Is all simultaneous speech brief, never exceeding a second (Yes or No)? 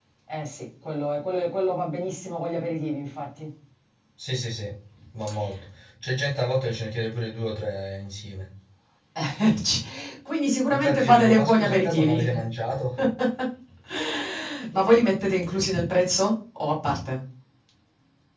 No